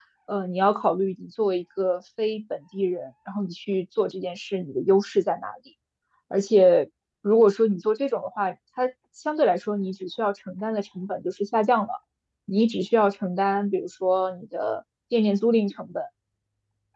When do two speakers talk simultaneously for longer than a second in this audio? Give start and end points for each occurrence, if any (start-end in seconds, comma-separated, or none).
none